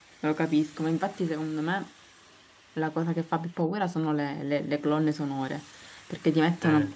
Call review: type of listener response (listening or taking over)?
listening